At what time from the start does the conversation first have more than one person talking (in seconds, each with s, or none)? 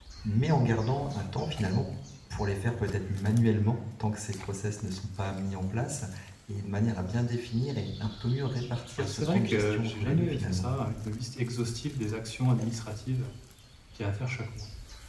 9.0 s